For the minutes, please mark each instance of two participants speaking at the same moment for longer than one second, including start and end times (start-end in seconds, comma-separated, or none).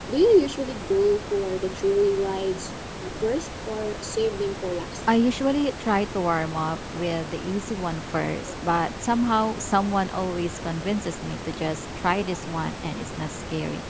none